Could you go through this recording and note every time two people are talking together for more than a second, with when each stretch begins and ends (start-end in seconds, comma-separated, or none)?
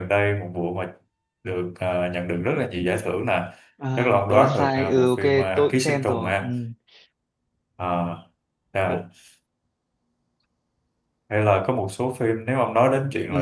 4.0-6.4